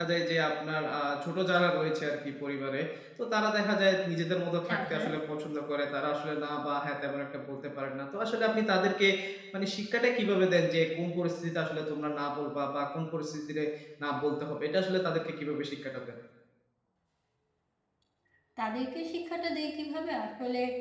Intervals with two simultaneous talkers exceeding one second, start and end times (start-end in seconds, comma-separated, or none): none